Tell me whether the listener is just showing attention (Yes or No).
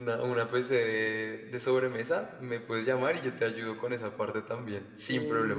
No